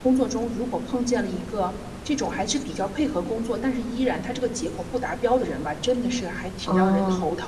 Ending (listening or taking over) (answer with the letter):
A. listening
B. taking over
A